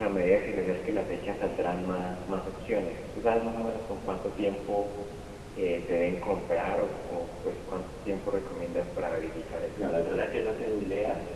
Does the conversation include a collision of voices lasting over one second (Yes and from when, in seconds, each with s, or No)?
No